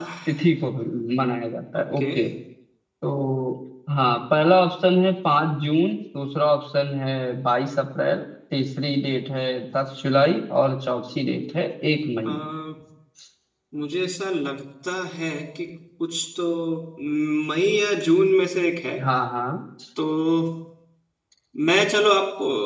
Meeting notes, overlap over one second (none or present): none